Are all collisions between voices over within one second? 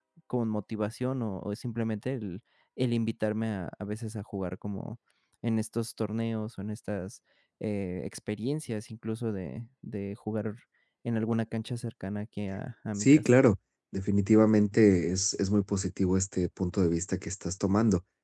Yes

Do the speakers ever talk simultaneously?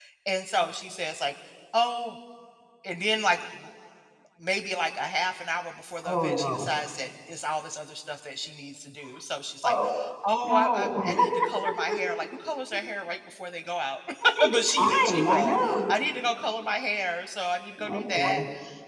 Yes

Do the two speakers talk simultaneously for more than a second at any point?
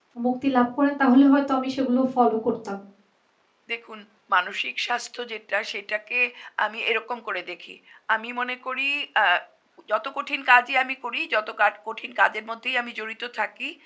No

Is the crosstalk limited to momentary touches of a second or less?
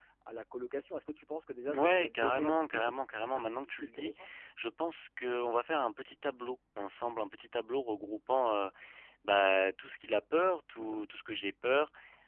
No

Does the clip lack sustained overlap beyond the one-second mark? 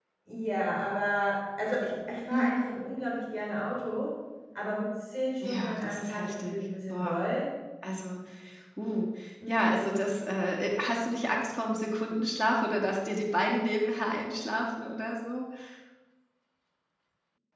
No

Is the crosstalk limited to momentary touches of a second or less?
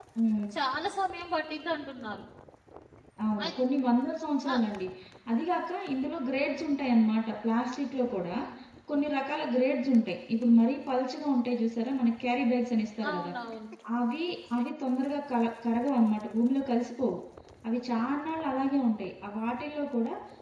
Yes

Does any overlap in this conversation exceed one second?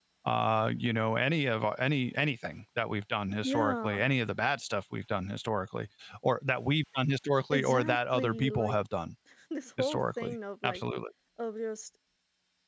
Yes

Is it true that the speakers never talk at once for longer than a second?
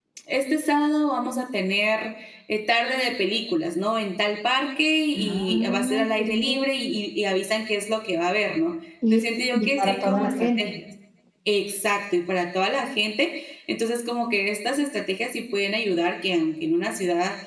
No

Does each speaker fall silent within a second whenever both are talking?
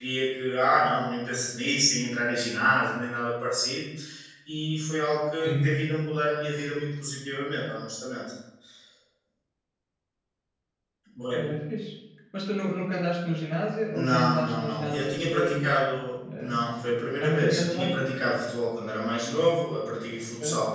No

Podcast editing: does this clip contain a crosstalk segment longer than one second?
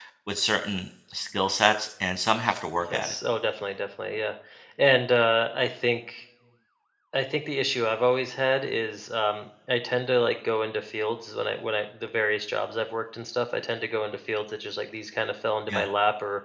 No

